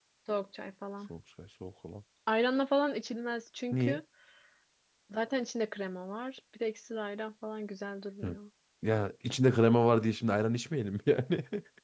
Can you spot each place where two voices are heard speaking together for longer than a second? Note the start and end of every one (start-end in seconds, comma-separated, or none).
none